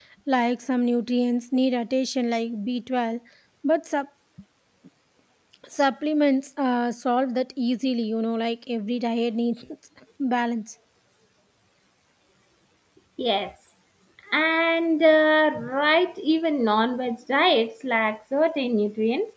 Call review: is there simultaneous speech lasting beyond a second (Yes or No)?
No